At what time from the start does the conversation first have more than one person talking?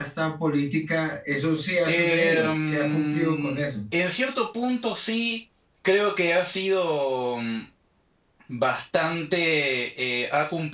1.9 s

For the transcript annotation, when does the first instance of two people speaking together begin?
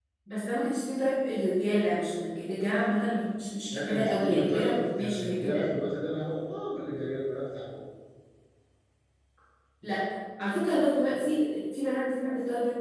3.7 s

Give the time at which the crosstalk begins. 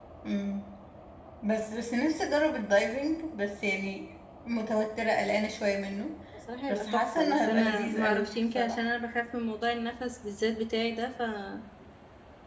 6.7 s

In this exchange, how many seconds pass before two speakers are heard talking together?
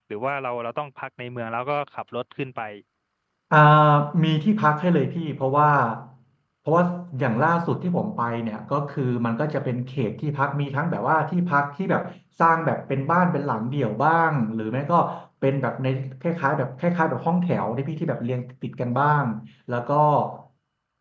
none

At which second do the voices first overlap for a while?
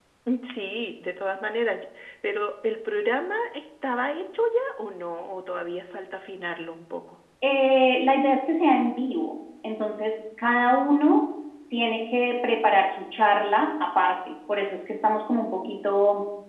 none

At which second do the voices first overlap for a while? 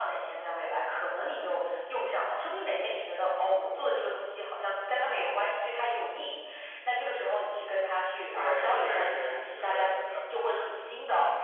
8.3 s

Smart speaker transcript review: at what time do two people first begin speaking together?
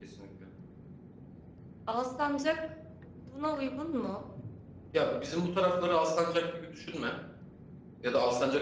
none

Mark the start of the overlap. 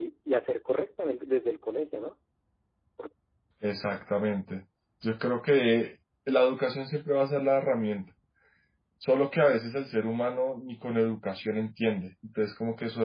none

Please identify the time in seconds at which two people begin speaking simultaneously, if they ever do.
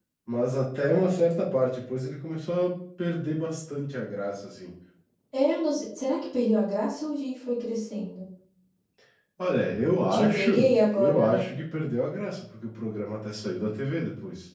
10.1 s

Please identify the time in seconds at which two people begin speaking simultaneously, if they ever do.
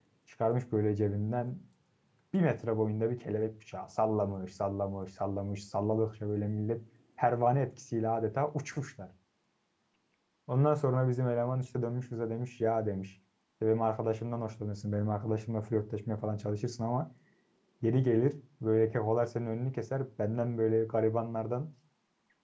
none

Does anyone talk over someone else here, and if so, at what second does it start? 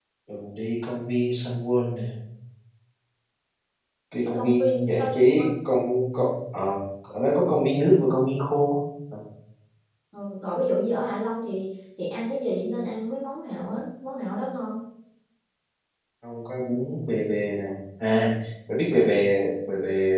4.2 s

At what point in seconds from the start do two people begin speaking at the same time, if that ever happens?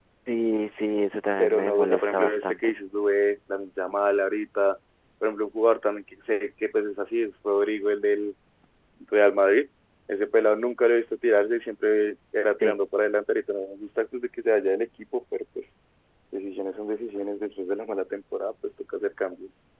1.4 s

